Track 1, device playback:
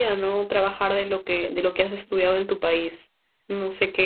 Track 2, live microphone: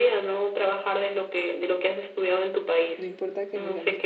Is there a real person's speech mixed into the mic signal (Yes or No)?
Yes